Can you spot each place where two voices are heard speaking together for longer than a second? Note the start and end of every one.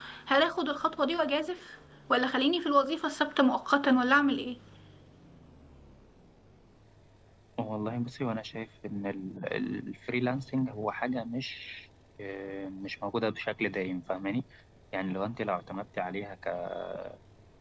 none

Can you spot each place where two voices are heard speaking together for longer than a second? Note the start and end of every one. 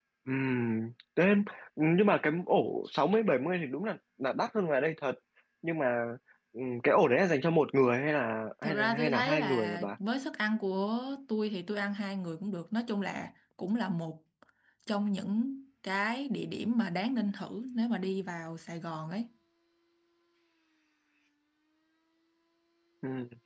8.6-9.9

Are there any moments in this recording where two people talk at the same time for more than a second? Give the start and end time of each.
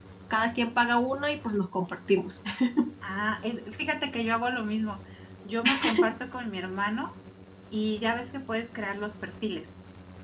none

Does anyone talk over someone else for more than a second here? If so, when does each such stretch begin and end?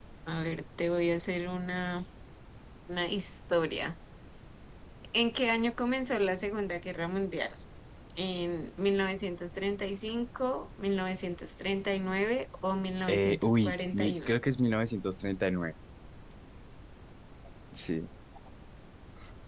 13.1-14.4

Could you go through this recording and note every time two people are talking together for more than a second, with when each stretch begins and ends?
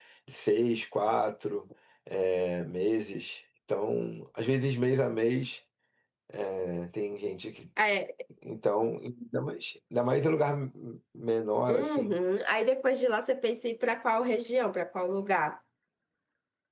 none

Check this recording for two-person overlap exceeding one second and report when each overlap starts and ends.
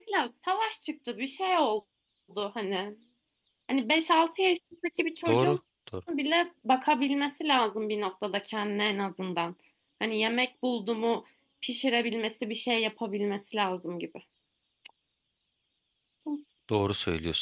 none

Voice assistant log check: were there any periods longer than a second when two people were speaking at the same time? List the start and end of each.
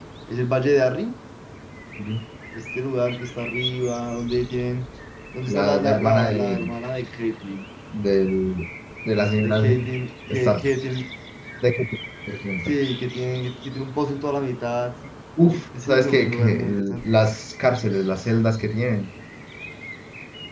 5.5-6.7, 15.8-17.2

